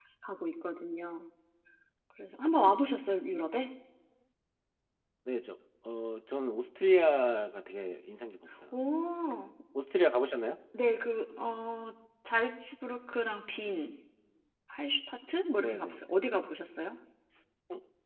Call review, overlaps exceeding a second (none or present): none